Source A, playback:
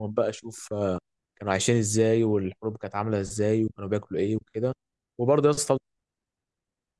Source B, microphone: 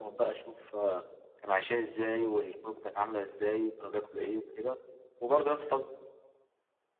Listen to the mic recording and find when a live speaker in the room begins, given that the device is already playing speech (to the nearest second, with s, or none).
none